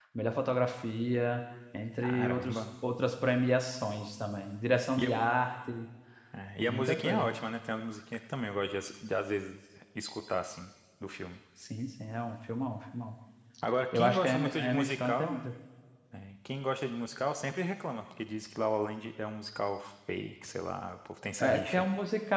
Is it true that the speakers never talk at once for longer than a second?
No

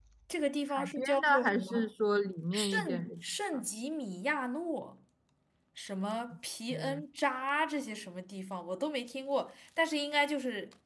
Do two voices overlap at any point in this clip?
Yes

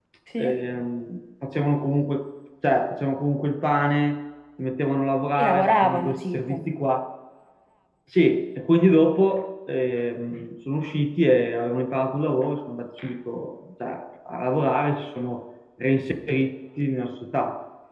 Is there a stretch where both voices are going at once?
Yes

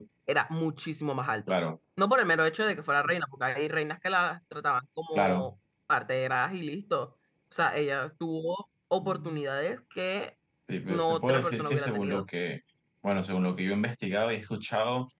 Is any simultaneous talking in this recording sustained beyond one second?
Yes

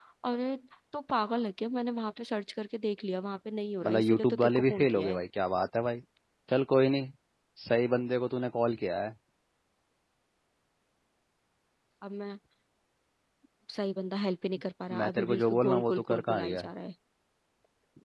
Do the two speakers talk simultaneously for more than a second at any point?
Yes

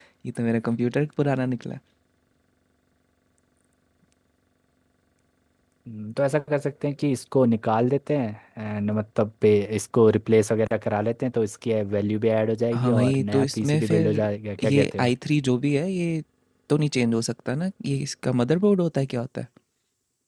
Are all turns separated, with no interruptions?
No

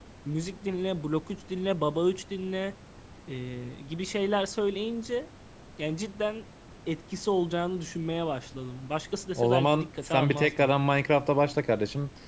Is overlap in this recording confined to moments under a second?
No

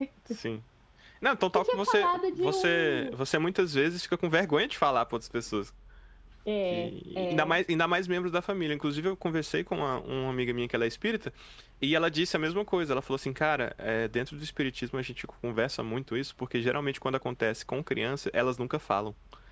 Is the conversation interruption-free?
No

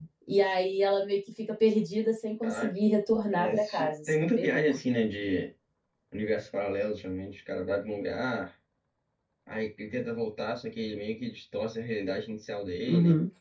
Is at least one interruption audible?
Yes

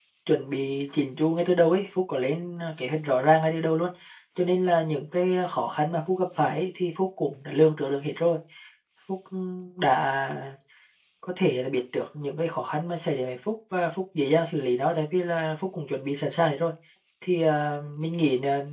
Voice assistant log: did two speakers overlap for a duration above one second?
No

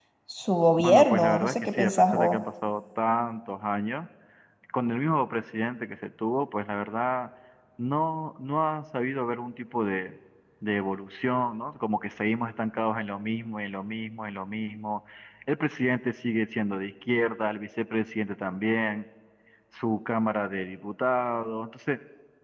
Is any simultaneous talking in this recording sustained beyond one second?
Yes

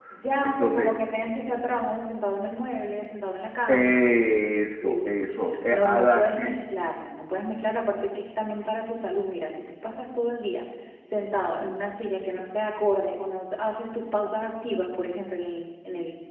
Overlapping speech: Yes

